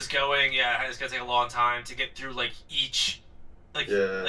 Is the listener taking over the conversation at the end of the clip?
No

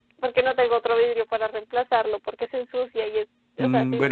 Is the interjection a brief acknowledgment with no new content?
No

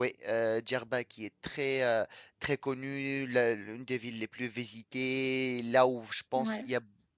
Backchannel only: Yes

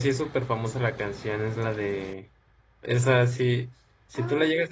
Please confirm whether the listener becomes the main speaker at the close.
Yes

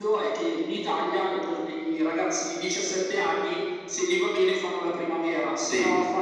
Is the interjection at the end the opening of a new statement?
No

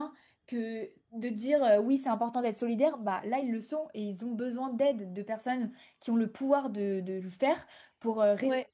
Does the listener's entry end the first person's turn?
No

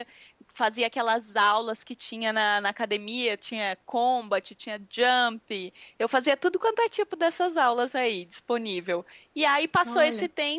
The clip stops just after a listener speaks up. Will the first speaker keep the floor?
Yes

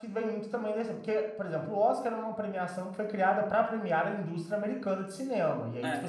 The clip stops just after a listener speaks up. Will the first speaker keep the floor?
Yes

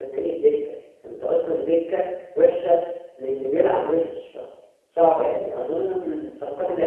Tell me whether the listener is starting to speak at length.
No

